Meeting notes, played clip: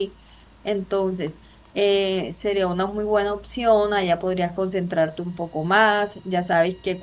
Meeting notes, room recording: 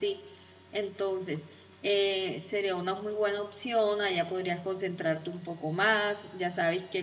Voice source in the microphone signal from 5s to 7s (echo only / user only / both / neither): echo only